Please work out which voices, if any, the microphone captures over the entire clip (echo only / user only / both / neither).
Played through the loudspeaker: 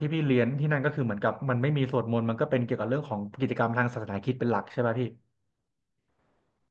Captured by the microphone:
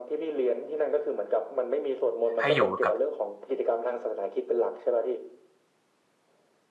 both